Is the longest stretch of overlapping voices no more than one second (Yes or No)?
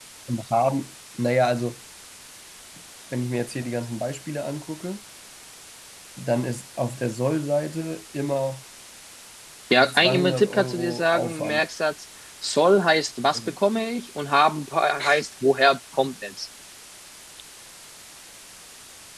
No